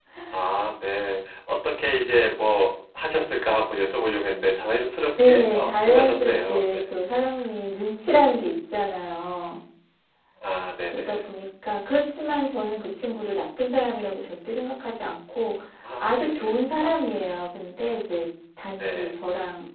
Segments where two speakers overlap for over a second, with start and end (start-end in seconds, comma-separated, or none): 5.2-6.8, 16.0-17.4